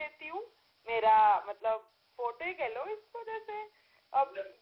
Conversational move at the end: listening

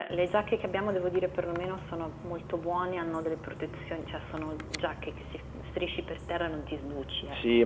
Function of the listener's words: taking over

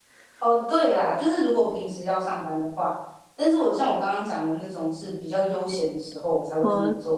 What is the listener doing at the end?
listening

